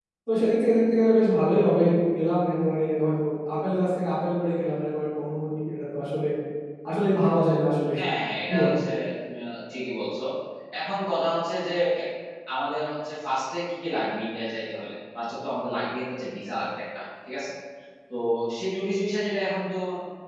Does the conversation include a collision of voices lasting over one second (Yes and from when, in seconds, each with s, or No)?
No